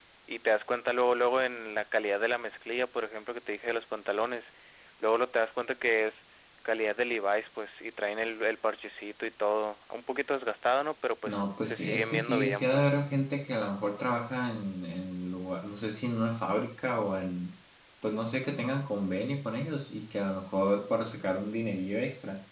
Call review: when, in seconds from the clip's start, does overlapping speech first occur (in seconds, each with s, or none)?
11.2 s